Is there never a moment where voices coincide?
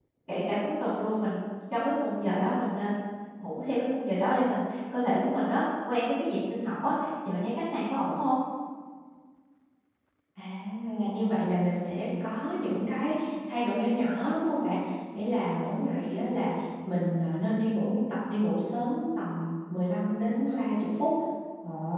Yes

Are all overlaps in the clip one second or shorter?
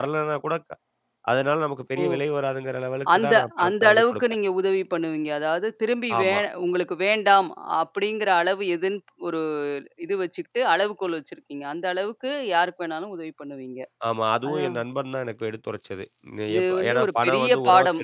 No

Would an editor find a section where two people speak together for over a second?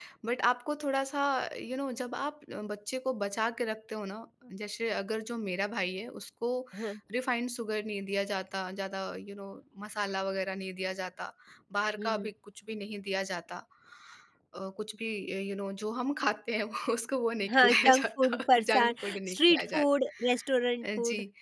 Yes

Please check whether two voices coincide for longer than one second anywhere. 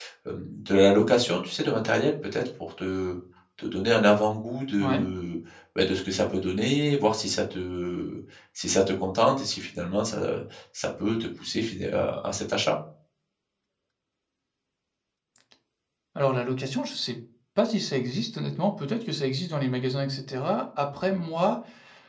No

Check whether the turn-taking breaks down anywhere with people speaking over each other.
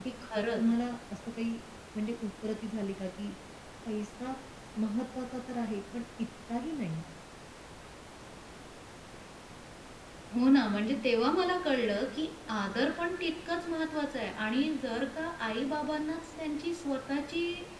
No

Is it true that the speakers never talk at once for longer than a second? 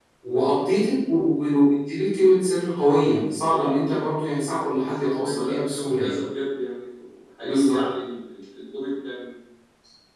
No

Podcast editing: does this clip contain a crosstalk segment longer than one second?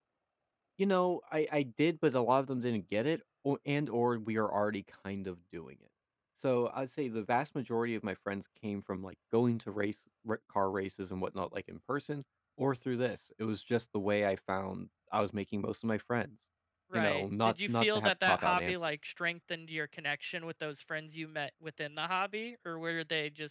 Yes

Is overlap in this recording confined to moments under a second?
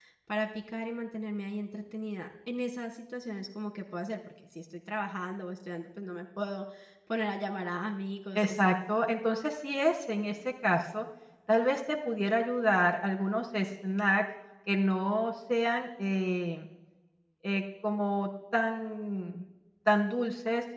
Yes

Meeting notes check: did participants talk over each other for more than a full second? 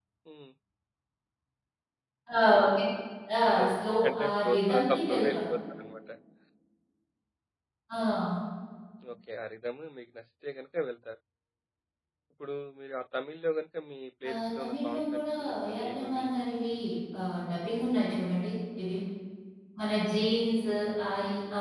Yes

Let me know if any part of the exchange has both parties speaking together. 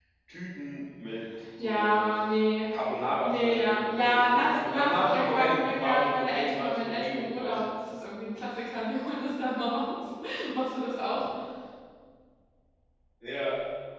Yes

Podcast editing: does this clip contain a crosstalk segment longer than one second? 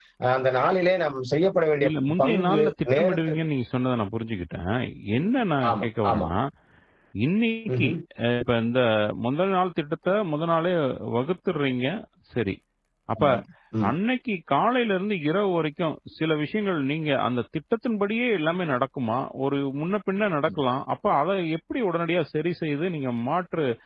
Yes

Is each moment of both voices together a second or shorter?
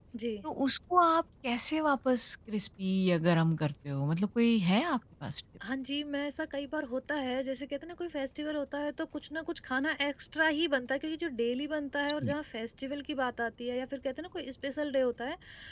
Yes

